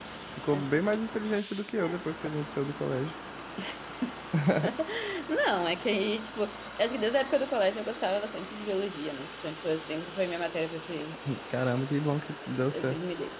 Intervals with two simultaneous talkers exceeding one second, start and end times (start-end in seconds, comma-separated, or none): none